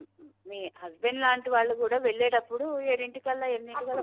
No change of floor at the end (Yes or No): No